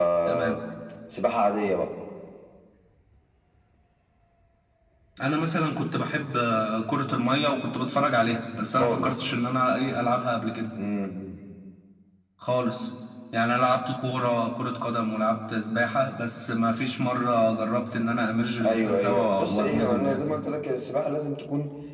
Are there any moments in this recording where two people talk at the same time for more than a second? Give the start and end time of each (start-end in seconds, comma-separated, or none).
18.6-20.2